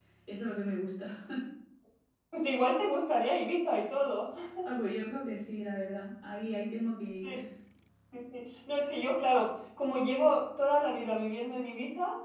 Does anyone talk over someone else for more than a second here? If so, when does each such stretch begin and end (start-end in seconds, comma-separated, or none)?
none